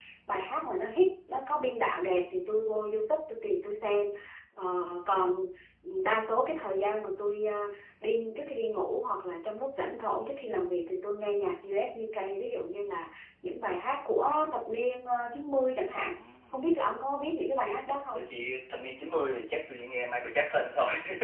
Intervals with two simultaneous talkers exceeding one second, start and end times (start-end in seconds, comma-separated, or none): none